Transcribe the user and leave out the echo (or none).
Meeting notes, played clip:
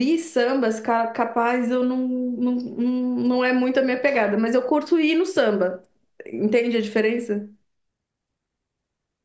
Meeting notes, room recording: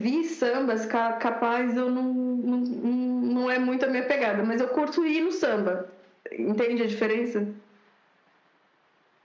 none